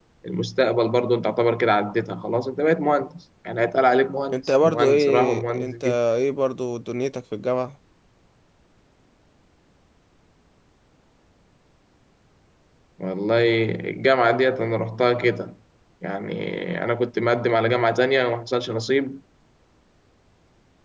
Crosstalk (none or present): present